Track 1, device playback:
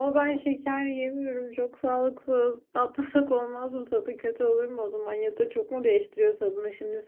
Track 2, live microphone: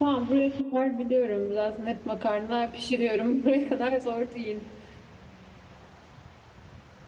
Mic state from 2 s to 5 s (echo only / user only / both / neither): user only